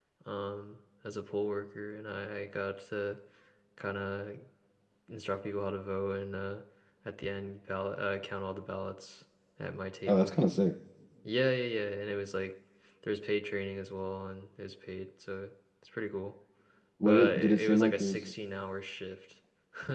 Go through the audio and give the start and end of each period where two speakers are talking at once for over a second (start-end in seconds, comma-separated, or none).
17.0-18.3